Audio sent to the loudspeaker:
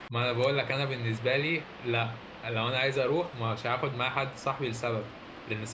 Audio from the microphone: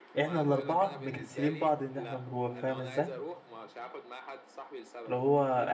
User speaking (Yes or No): Yes